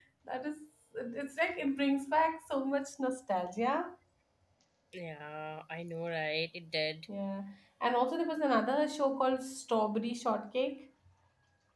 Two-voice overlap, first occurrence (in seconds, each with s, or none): none